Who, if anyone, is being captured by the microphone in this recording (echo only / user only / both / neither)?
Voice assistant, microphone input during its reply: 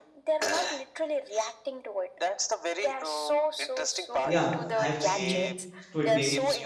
both